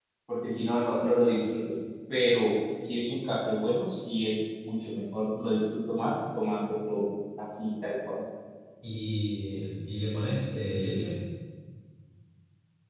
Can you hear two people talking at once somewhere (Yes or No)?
No